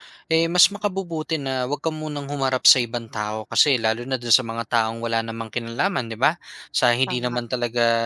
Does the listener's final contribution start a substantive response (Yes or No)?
No